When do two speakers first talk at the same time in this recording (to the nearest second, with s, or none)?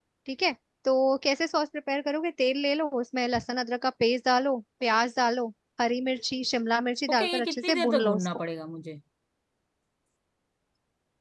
7 s